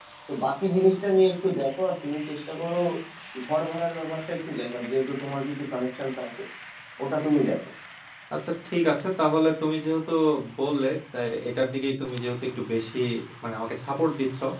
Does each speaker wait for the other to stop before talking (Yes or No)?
Yes